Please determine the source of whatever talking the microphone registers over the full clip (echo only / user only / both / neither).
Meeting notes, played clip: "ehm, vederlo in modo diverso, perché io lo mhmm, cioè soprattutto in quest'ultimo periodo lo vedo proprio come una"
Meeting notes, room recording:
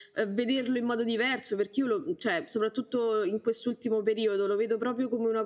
echo only